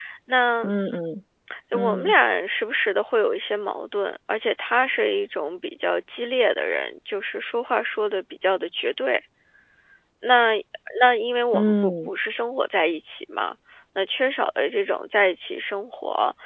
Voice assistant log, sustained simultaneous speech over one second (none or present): none